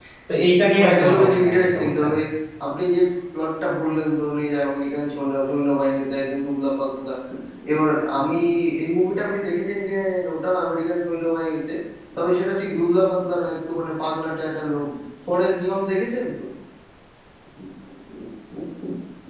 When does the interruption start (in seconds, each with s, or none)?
0.8 s